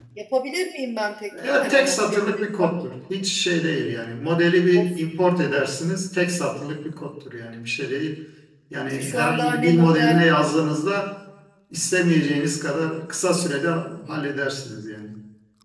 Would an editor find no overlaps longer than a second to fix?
No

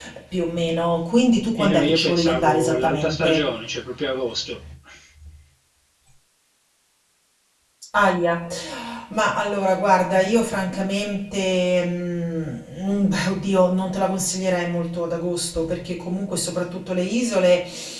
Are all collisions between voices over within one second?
No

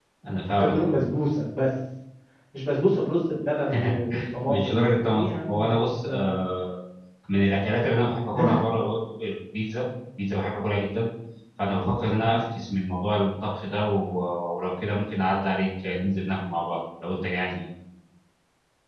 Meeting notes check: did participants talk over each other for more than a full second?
Yes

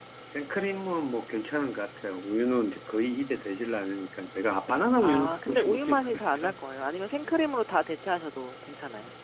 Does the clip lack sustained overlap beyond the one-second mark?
No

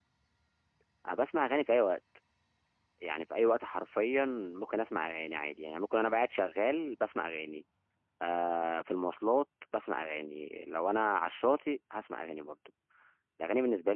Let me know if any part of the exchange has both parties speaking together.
No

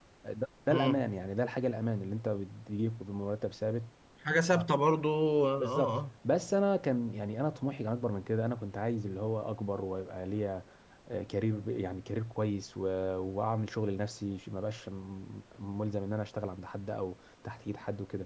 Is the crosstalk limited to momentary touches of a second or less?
Yes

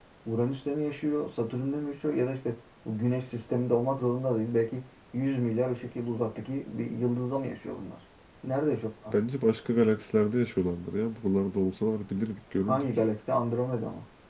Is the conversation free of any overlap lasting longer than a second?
Yes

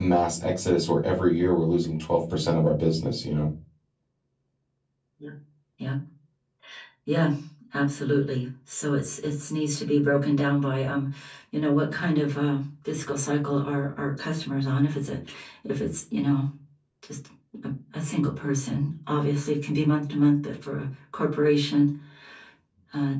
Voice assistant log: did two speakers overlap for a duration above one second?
No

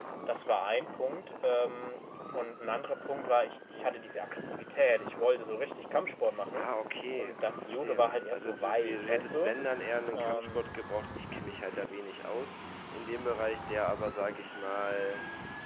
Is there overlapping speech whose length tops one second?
Yes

